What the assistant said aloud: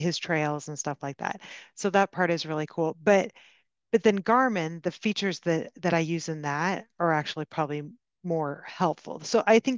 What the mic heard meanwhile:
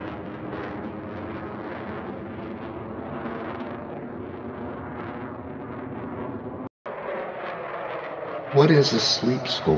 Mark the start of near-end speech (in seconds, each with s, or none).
8.5 s